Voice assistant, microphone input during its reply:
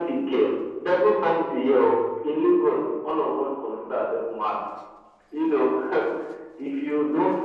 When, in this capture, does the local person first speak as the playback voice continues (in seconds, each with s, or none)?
none